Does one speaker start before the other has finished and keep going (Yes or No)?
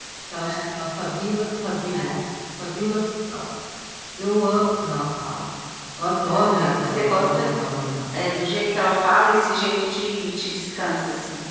Yes